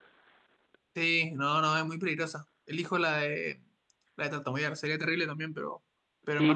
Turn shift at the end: Yes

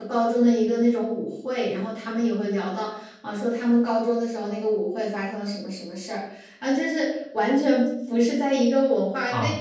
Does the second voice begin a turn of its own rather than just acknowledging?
Yes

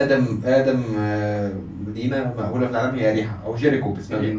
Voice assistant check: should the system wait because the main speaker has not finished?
No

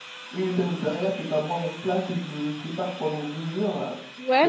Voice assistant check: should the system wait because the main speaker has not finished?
No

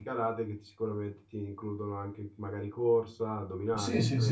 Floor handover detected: Yes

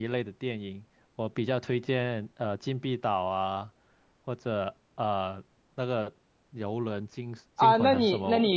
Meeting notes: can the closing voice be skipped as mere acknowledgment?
No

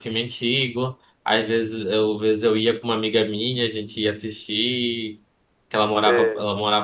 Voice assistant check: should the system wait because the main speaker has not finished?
Yes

